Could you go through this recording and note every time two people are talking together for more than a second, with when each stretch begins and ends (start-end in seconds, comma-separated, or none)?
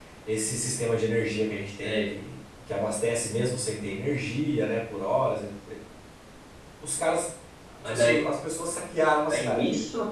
none